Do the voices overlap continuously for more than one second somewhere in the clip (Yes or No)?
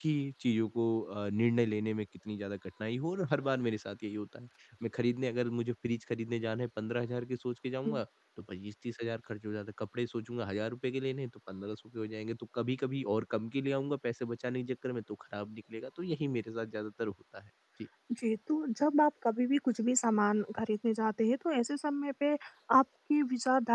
No